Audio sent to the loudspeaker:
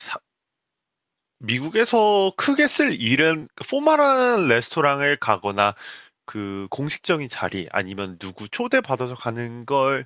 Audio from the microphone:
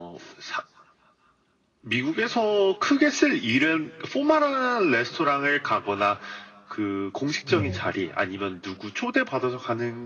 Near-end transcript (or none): 네.